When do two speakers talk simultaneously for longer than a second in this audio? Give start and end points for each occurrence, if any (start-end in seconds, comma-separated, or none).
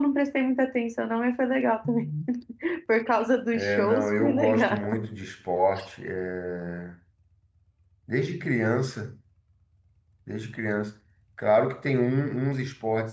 3.5-4.8